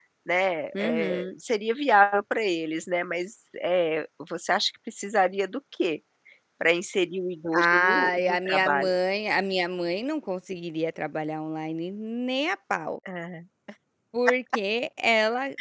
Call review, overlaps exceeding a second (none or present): present